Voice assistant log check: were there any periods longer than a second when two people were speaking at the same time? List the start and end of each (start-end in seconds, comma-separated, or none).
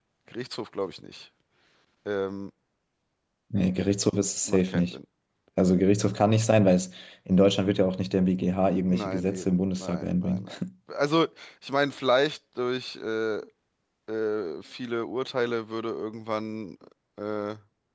8.9-10.5